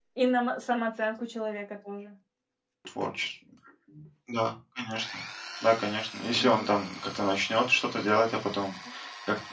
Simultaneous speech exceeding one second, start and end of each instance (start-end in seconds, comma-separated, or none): none